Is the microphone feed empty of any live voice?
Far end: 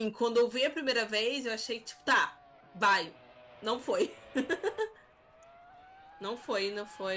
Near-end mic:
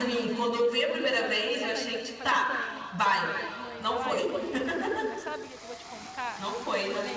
No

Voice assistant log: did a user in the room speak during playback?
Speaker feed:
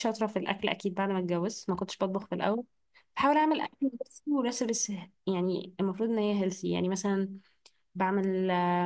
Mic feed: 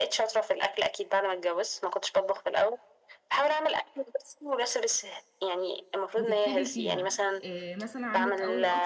Yes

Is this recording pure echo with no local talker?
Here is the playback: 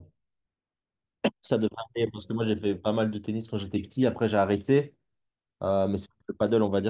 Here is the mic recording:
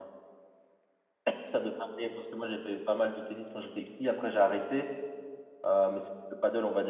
Yes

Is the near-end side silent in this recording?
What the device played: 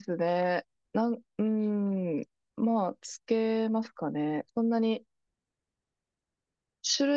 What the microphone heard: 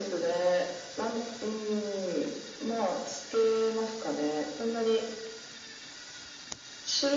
Yes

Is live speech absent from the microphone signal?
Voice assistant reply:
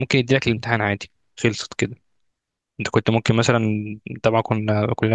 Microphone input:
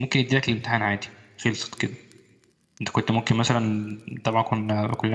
Yes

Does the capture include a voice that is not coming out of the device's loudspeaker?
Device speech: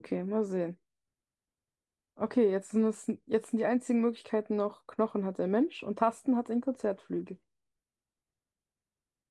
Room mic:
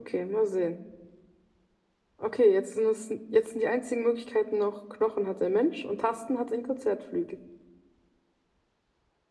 No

